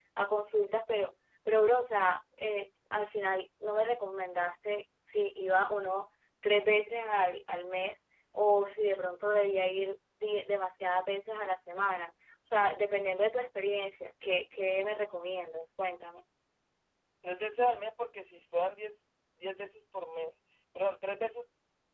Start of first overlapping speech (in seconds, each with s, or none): none